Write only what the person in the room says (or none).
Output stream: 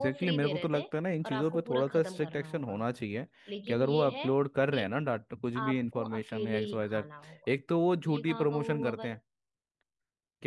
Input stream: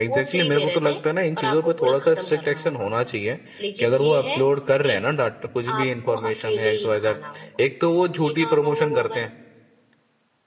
none